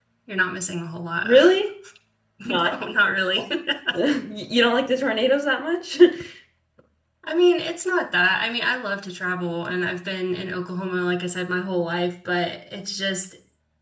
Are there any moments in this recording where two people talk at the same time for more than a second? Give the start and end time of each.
none

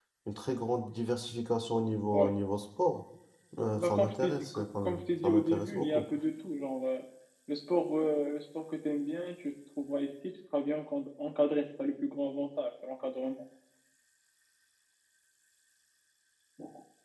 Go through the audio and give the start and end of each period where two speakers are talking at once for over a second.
3.8-6.0

